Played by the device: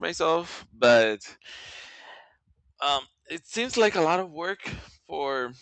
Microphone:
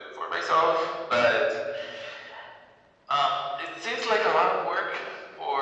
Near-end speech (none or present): none